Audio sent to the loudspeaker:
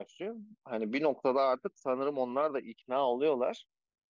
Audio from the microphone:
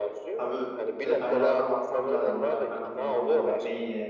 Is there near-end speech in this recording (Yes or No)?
Yes